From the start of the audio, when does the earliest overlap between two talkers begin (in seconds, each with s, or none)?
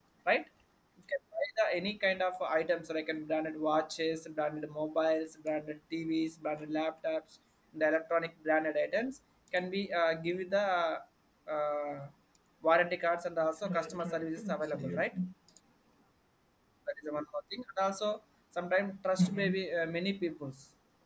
13.7 s